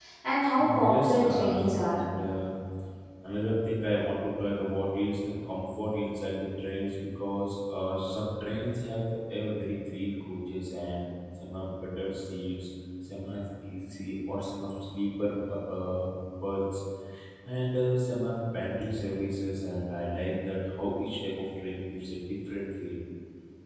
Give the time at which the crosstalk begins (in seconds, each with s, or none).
0.6 s